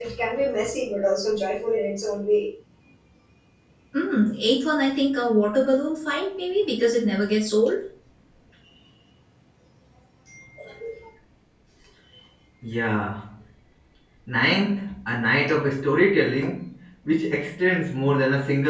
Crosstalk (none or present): none